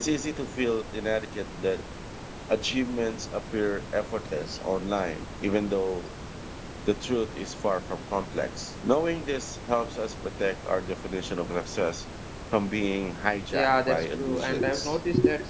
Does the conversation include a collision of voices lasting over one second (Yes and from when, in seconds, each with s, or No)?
Yes, from 13.5 s